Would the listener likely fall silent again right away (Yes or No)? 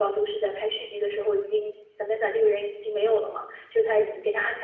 Yes